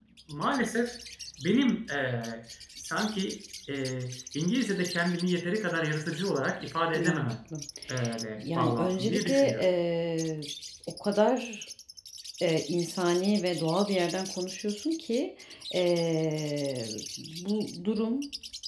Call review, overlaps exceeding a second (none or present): present